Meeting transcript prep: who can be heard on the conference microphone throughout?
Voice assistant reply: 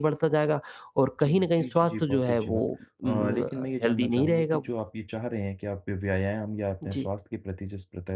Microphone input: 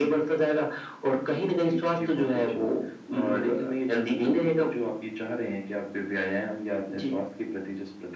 echo only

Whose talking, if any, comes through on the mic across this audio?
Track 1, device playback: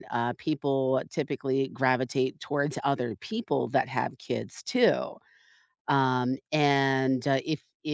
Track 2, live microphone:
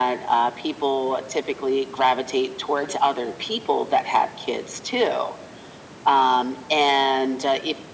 echo only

